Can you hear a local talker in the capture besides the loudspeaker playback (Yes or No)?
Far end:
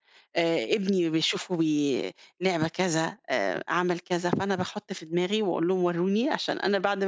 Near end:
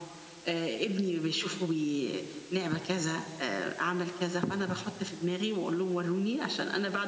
No